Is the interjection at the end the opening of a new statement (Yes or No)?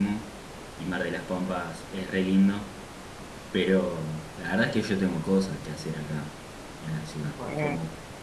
No